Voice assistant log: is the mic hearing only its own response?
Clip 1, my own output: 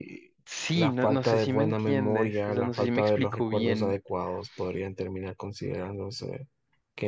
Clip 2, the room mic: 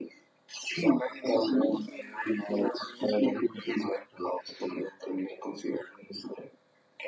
Yes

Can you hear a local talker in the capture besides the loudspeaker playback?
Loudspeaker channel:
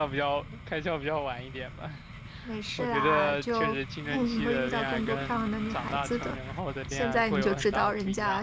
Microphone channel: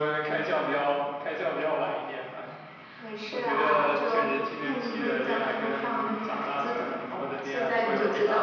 No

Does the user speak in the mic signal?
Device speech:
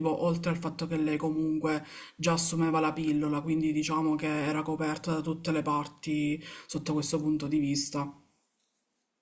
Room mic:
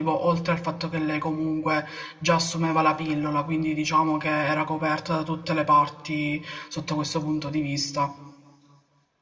No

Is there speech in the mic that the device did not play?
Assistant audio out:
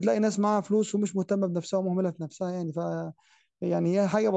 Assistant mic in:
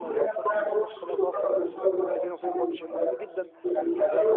Yes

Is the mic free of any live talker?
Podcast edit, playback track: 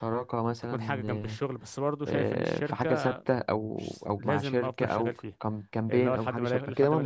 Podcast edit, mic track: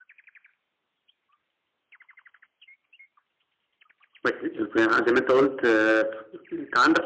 No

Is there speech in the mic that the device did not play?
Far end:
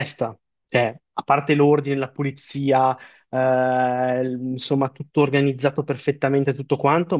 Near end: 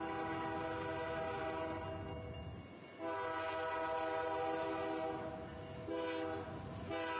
No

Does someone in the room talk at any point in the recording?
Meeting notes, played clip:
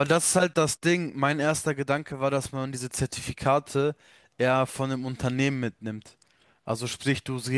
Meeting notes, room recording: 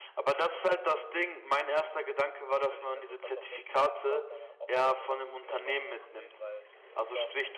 Yes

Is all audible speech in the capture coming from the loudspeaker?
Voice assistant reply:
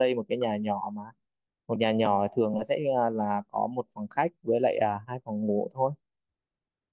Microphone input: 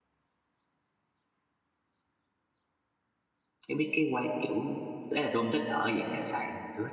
No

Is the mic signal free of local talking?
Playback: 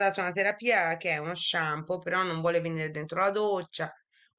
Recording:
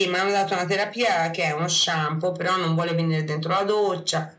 Yes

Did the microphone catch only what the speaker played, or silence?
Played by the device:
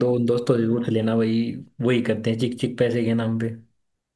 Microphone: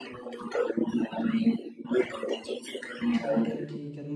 No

